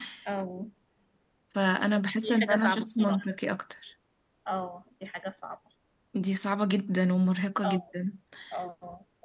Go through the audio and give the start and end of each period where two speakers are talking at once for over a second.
1.9-3.2

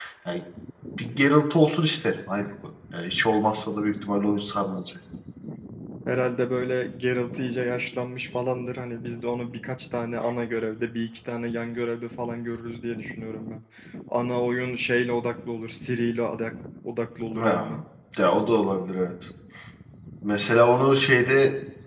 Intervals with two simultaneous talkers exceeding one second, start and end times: none

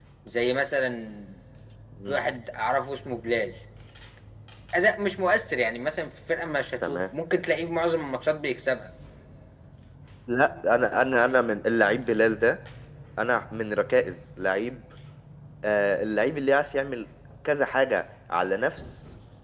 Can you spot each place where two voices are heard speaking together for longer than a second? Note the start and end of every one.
none

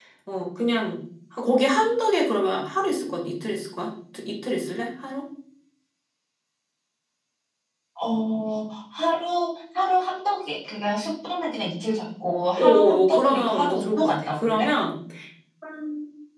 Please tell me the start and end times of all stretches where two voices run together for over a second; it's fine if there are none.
12.6-14.7

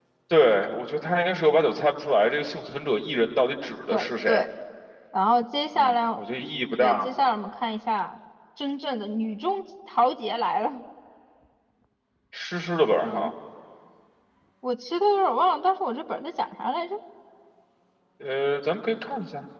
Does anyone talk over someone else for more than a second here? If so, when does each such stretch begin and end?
none

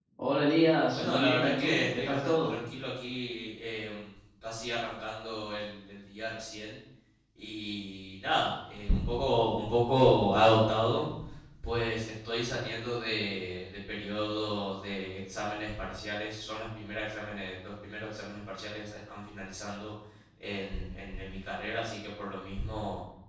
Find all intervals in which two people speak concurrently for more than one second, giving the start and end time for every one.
0.9-2.6

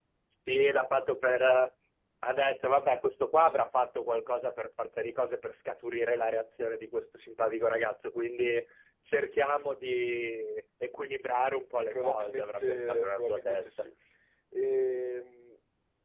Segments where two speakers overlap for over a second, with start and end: 11.9-13.9

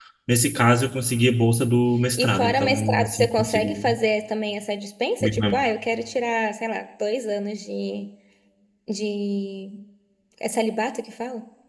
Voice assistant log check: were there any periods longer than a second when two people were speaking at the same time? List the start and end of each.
2.1-3.9

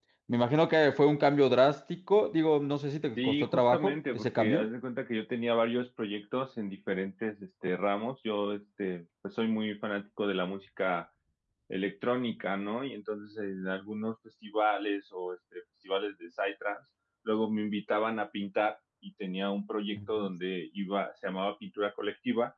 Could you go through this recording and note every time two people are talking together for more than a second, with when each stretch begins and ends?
3.2-4.7

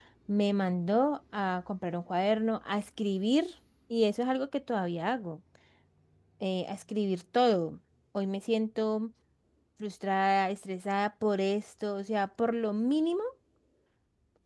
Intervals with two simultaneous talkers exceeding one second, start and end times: none

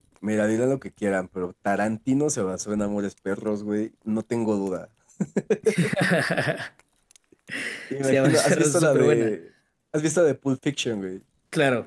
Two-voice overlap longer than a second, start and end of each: 8.0-9.3

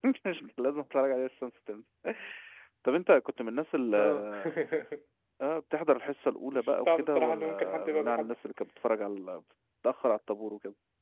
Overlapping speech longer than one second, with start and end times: 6.5-8.3

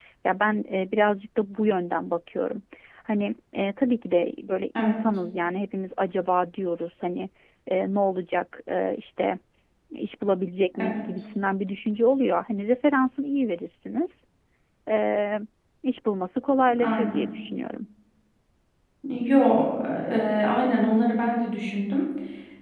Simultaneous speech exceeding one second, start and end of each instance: none

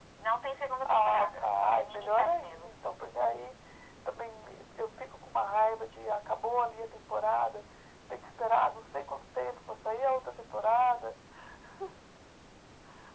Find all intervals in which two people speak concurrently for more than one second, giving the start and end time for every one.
0.8-2.7

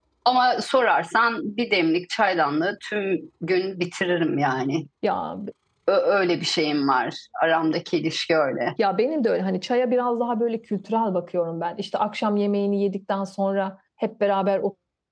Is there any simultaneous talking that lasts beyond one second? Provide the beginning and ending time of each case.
none

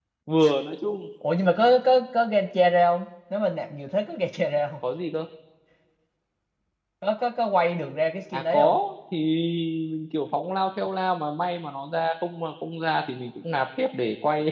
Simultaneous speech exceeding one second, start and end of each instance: none

